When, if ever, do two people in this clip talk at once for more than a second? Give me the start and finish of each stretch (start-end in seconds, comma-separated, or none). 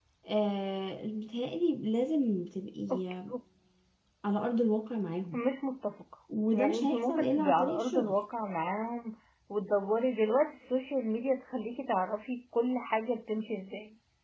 6.5-8.1